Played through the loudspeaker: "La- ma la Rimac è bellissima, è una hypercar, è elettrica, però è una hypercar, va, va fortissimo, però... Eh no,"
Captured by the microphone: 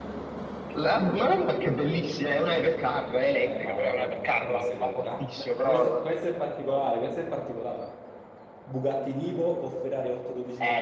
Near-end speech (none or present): present